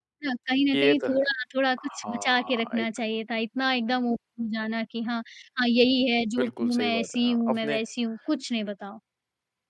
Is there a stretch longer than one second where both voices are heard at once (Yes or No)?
Yes